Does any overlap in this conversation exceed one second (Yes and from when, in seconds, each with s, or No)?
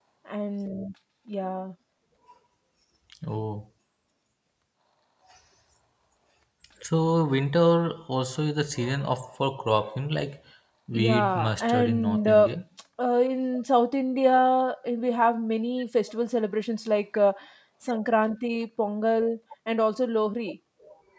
Yes, from 10.9 s